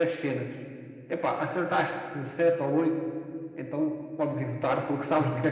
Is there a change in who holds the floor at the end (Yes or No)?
Yes